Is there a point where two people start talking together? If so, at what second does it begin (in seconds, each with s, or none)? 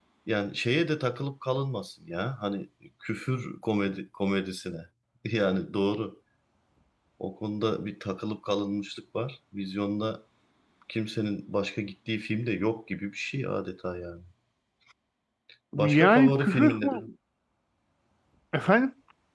15.8 s